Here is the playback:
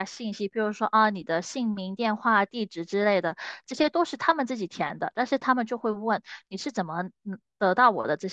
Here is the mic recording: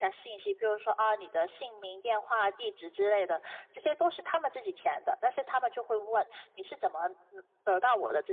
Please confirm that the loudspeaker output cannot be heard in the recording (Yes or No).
No